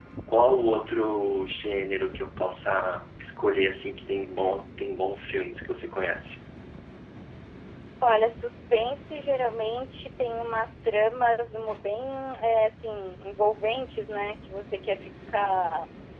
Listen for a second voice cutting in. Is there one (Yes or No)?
No